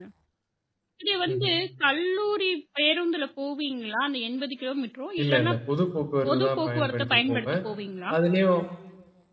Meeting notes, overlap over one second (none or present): present